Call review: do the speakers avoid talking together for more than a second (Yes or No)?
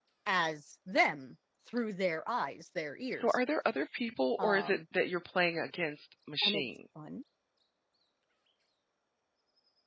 Yes